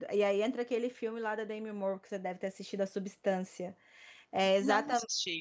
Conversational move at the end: listening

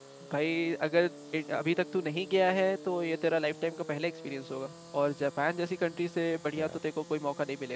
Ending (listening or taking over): listening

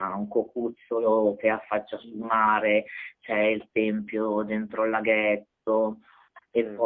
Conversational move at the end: listening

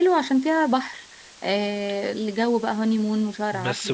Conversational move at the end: taking over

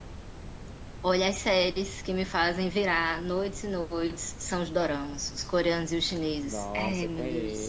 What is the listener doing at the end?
taking over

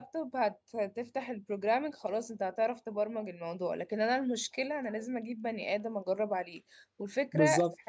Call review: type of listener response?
listening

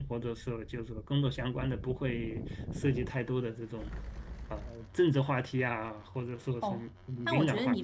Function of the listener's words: taking over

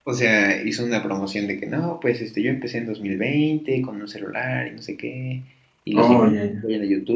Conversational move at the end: listening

